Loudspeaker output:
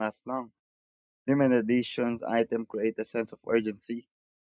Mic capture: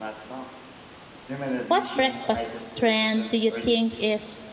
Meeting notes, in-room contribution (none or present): present